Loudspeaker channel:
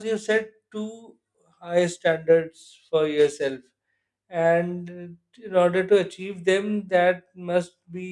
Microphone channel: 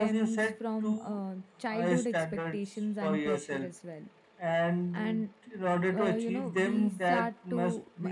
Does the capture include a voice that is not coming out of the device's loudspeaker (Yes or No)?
Yes